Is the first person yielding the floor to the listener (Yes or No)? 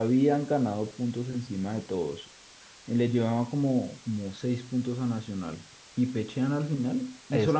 No